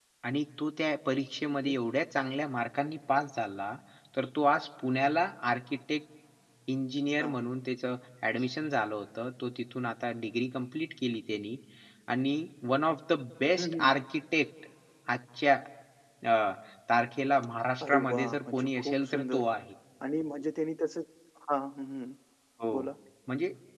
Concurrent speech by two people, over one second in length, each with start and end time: 17.8-19.4

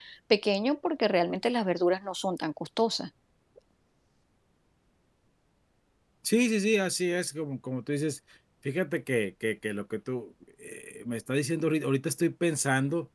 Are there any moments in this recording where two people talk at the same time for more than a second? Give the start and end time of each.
none

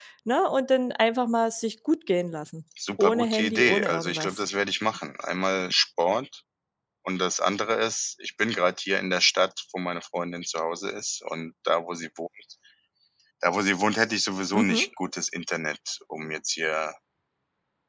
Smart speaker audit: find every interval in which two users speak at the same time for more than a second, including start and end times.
3.0-4.4

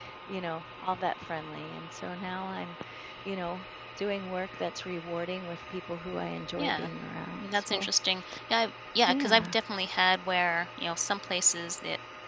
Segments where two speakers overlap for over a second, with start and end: none

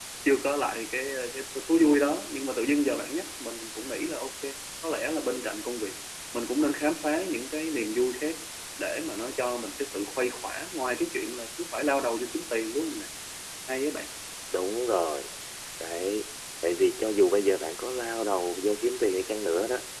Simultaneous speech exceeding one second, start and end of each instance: none

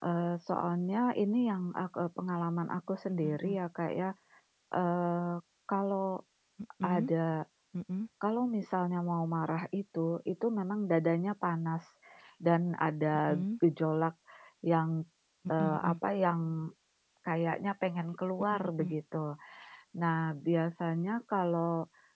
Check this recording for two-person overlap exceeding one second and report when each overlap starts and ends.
none

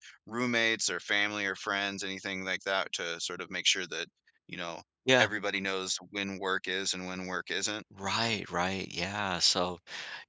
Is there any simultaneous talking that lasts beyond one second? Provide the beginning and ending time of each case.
none

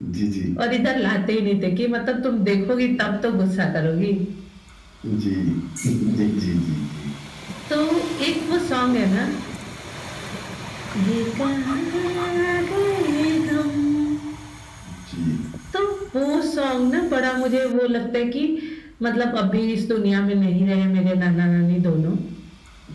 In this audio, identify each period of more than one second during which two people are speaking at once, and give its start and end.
none

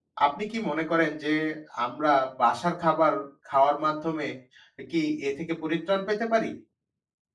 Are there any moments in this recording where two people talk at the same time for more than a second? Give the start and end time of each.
none

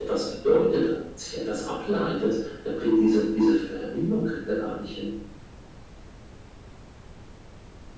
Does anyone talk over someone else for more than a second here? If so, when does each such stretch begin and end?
none

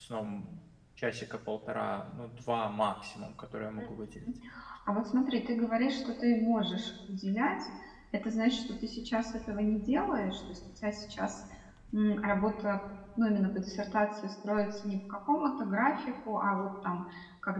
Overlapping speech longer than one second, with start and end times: none

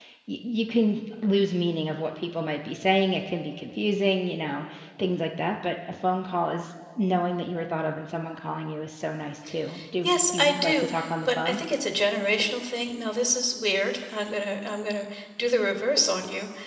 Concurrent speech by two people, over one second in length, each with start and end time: 10.0-11.6

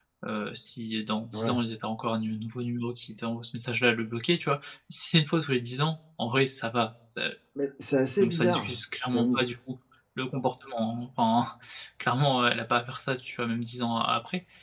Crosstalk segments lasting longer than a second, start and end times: 8.2-9.4

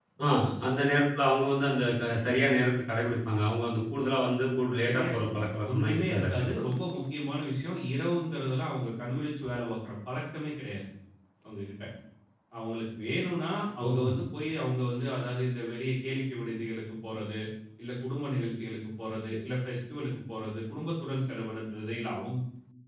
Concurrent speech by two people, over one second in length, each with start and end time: 4.8-6.4

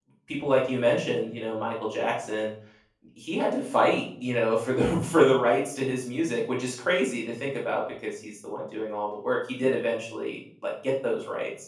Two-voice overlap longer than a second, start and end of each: none

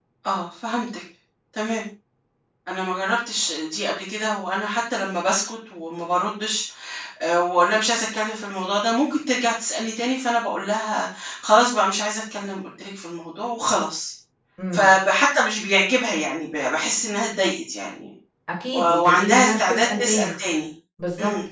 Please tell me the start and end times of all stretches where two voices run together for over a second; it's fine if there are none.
18.7-20.4

